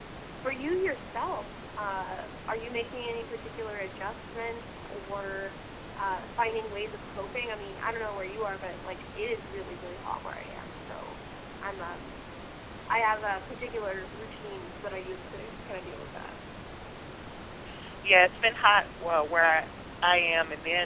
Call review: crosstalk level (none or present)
none